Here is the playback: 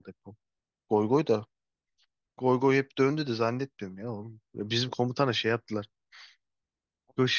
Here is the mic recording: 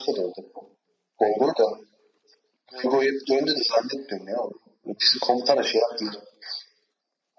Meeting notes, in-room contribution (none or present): none